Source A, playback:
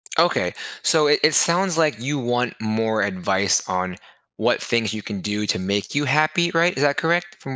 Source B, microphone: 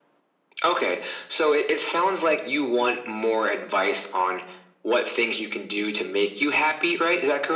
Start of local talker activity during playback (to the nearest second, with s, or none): none